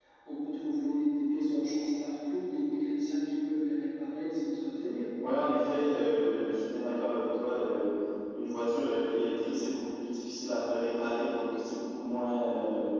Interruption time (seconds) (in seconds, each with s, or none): none